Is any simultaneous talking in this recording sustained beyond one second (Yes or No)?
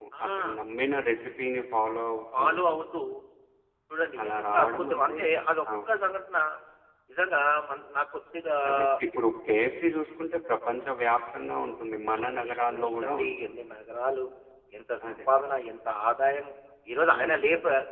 Yes